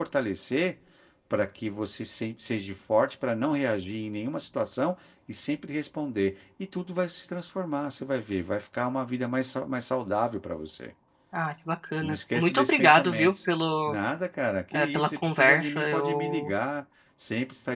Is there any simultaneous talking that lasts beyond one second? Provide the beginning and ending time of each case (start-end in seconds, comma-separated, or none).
12.0-13.3, 14.7-16.5